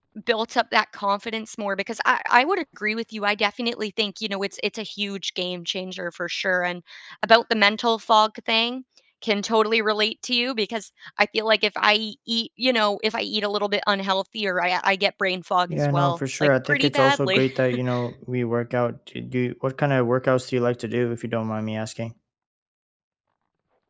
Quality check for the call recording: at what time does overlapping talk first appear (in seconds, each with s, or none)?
15.7 s